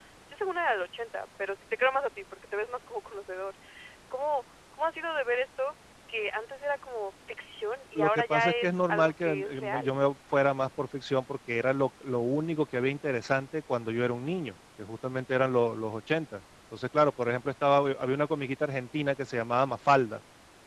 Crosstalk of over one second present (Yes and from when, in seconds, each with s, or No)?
Yes, from 8.0 s